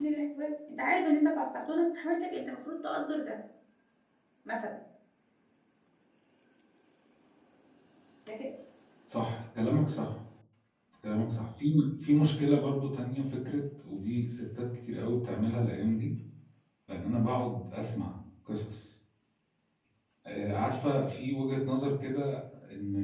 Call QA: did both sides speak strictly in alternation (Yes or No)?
Yes